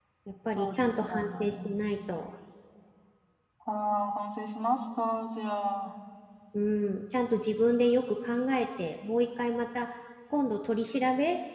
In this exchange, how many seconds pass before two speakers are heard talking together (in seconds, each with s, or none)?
0.6 s